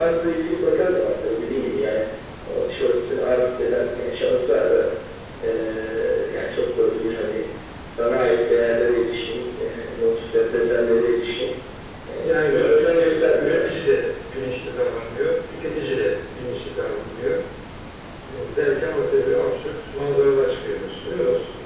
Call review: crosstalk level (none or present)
present